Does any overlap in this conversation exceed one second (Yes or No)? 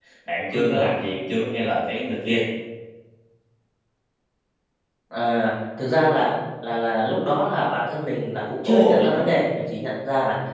No